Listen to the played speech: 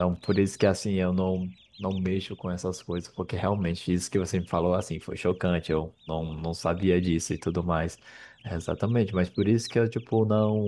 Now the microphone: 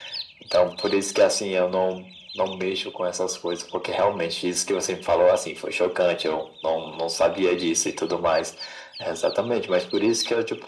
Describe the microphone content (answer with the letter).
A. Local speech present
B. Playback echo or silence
B